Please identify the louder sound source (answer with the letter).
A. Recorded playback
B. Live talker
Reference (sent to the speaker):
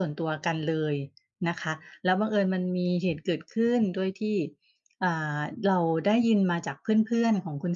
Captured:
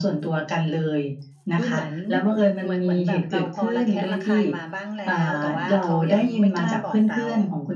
A